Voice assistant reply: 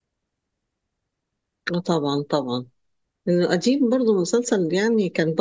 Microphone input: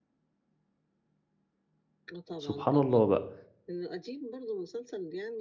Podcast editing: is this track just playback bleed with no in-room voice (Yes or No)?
No